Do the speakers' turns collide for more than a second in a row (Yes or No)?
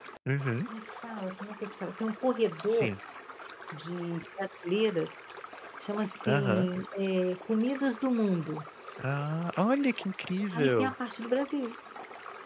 No